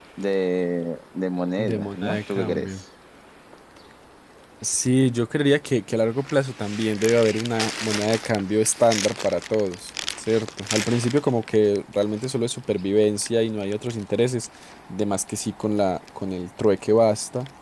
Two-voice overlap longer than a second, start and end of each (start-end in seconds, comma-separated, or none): 1.6-2.8